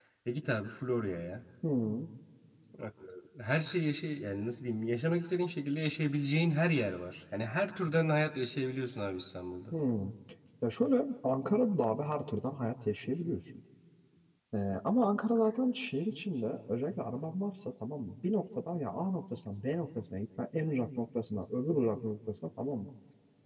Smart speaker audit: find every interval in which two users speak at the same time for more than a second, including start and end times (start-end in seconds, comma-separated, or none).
none